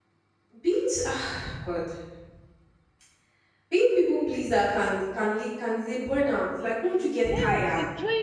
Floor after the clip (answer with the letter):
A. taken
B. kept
A